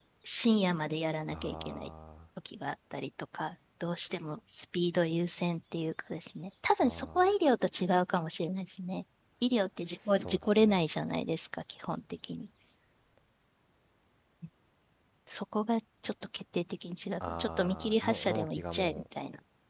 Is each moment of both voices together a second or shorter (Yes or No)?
No